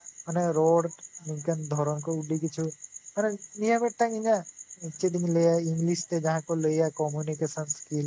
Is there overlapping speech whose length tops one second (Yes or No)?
No